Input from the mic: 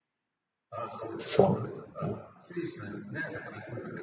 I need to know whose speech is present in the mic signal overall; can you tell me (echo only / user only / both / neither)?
both